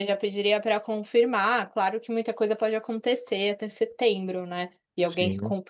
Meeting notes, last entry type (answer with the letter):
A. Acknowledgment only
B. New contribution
A